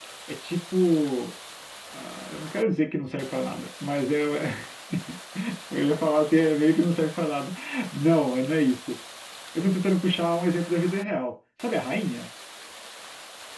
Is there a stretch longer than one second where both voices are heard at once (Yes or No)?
No